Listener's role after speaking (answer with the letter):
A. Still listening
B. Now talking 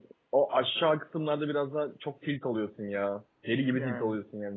A